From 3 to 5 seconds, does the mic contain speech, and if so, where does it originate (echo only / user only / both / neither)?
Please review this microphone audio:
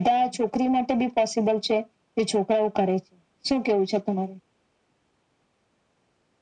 echo only